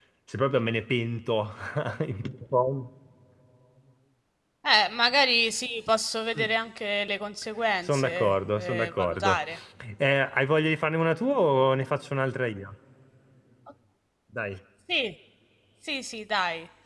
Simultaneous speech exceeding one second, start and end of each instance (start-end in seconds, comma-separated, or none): 7.8-9.3